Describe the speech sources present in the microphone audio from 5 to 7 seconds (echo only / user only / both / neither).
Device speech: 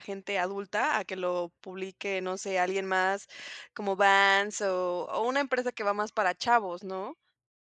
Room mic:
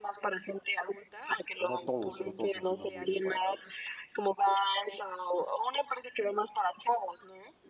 echo only